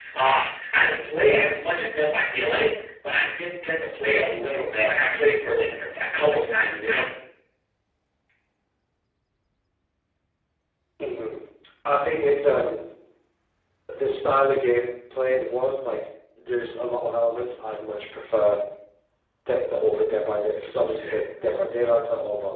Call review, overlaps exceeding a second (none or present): none